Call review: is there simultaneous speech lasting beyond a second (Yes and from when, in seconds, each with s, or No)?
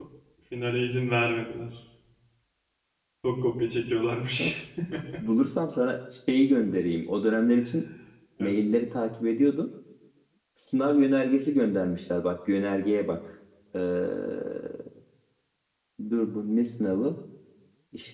No